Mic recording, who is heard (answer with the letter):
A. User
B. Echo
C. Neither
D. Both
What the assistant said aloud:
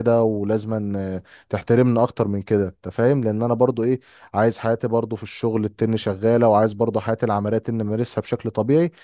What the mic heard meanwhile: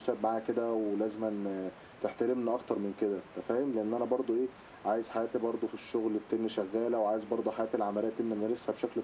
B